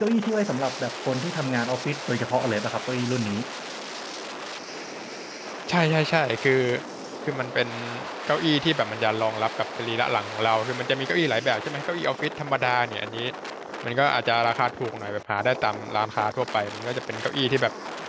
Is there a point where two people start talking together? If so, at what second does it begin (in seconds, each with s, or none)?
none